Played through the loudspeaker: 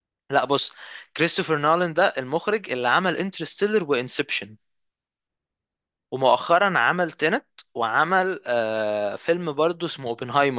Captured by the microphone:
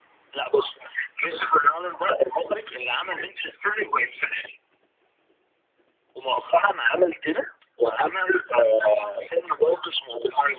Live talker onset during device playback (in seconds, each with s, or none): none